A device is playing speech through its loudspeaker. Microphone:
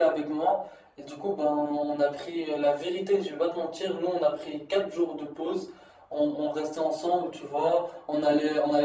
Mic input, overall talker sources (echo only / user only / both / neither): echo only